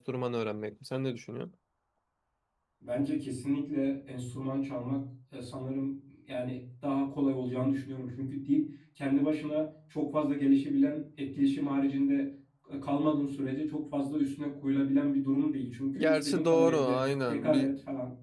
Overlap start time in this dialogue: 16.0 s

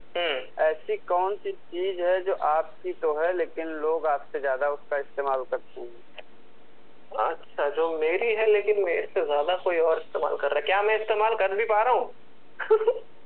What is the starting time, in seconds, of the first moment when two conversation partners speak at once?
none

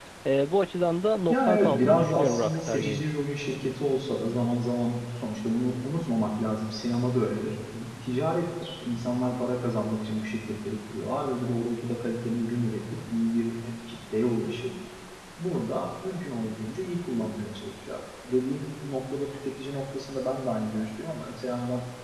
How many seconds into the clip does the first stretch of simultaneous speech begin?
1.3 s

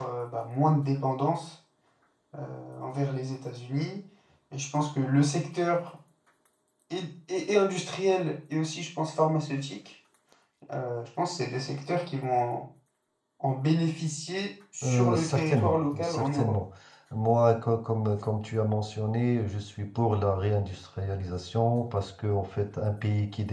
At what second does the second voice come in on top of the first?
14.8 s

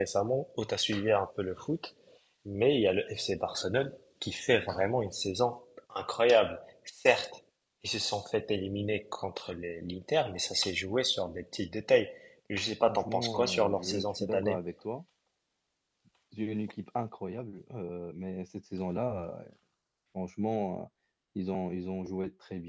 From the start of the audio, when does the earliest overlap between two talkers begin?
12.9 s

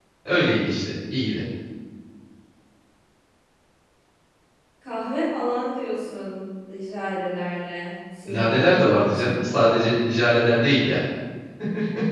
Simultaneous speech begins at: 8.3 s

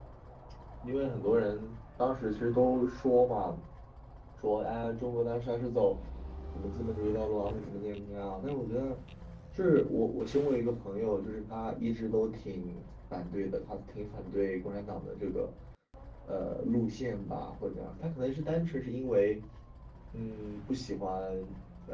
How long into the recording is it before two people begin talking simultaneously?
none

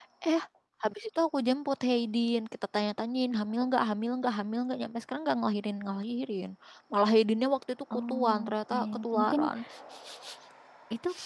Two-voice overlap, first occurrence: 7.9 s

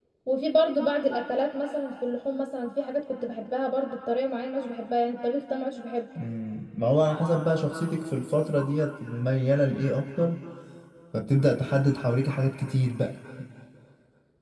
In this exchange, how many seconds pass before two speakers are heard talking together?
none

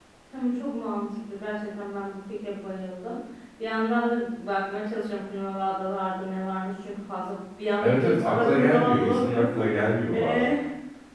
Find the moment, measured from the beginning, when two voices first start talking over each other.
7.8 s

